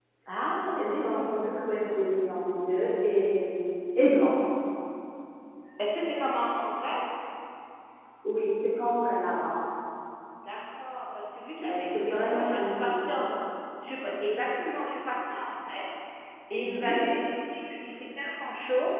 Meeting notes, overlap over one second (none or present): present